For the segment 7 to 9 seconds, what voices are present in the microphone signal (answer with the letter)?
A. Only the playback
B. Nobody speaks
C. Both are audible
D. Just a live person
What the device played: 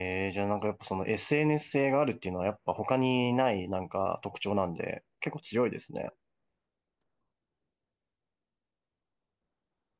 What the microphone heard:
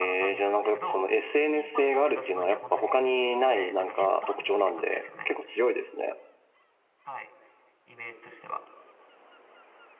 D